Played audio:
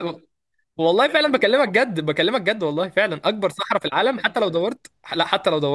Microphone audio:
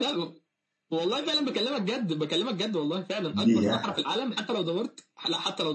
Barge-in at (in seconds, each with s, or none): 3.3 s